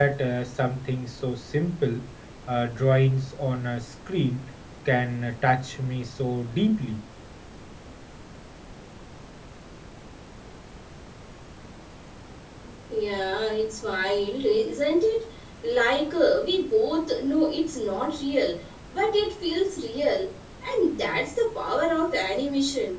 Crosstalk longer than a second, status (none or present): none